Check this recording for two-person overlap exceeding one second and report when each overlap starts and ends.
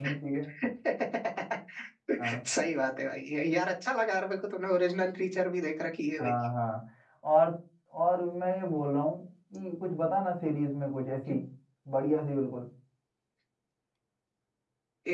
none

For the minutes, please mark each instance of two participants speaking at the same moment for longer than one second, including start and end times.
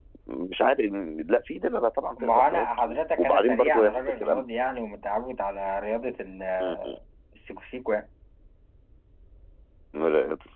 2.2-4.4

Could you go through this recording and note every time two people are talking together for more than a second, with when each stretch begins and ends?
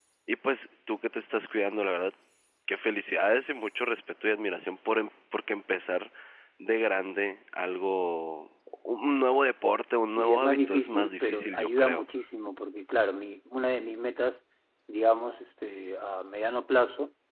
10.2-12.0

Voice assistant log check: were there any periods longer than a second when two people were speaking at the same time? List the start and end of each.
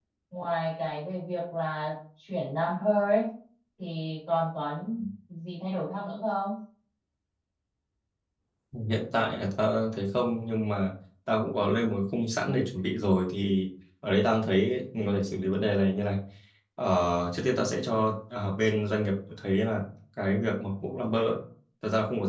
none

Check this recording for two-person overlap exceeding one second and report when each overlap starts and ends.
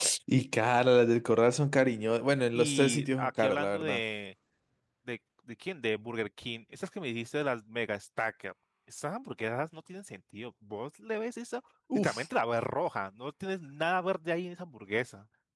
2.6-4.0

